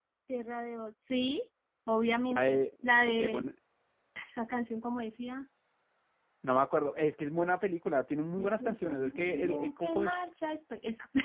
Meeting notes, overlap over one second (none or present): present